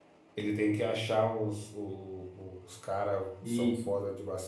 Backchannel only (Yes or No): Yes